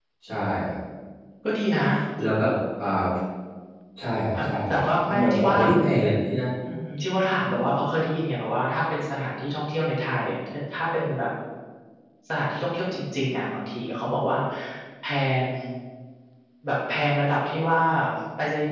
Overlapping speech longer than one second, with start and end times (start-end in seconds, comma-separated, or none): 4.3-5.6